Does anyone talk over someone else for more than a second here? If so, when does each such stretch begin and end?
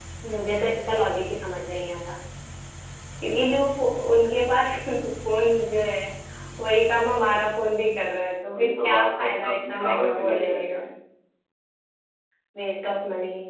8.5-10.8

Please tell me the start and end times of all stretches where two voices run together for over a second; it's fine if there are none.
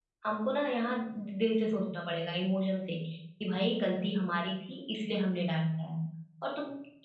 none

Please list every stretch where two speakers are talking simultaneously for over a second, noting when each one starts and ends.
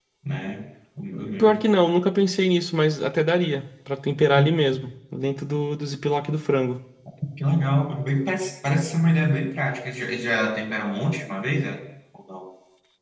none

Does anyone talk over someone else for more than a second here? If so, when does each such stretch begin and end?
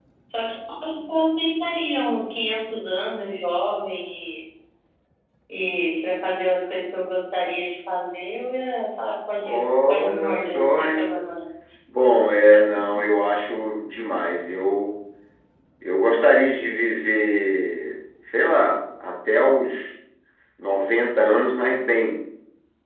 9.4-11.1

